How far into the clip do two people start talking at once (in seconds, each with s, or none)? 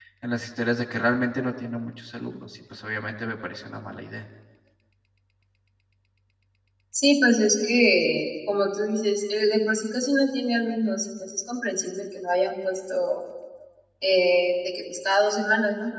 none